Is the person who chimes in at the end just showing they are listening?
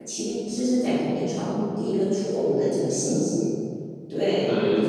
Yes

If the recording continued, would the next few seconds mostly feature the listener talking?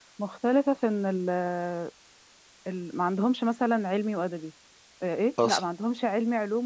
No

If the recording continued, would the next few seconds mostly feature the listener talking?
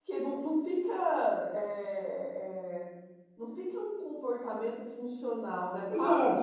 Yes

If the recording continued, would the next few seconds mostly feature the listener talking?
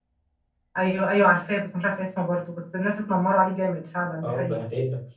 Yes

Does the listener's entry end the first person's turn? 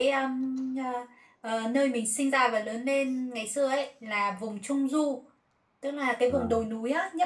No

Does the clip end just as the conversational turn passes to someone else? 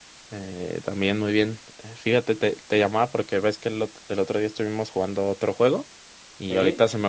No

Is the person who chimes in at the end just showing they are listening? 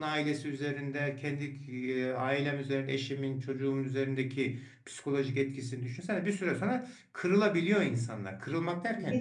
Yes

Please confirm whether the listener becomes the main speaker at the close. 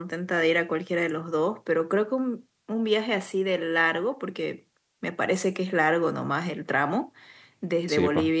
No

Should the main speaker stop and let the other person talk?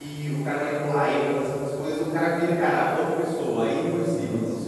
No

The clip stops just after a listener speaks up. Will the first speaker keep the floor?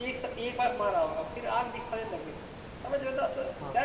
Yes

